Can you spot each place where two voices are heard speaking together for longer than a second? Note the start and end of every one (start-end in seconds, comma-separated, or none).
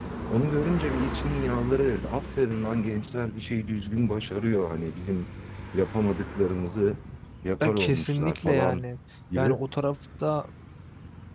7.6-8.8